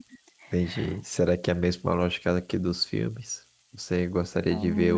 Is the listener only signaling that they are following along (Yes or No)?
Yes